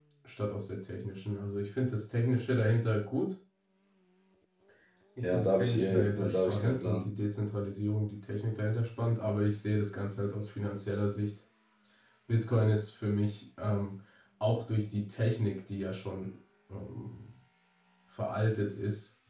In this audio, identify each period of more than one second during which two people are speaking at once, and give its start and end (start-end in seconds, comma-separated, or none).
5.2-7.1